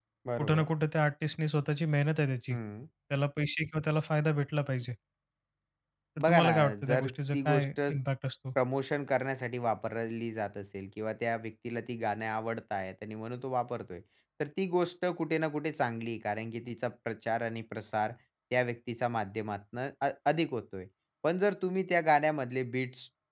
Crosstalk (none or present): present